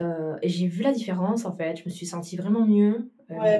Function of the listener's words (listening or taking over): taking over